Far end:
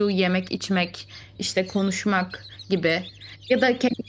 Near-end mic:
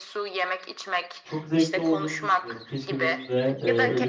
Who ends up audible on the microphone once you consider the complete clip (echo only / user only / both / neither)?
both